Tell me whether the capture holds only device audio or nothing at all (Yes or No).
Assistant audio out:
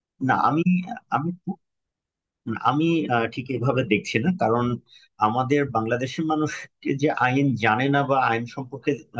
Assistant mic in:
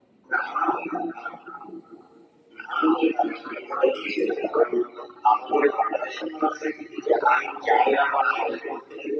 Yes